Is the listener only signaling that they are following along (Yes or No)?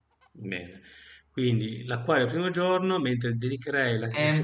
No